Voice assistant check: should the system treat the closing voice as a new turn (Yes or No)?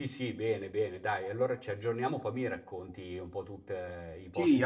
Yes